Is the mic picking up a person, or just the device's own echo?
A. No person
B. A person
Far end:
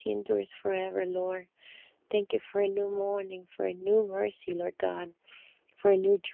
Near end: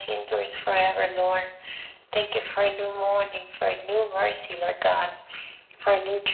A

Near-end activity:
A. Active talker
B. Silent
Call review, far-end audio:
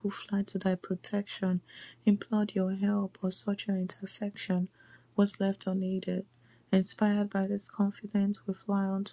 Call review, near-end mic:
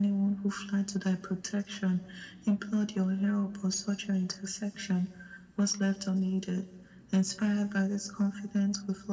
B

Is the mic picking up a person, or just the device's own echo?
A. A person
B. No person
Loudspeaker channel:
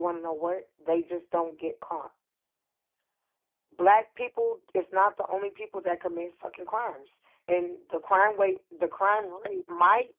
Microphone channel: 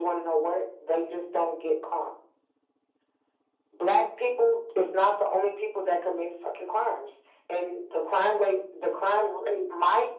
B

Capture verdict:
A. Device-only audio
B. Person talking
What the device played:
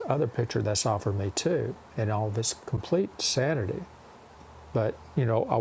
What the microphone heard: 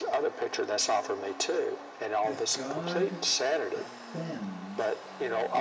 B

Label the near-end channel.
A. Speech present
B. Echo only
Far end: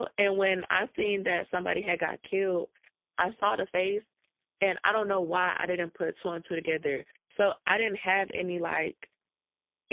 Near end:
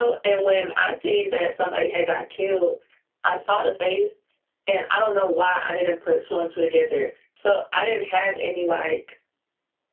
B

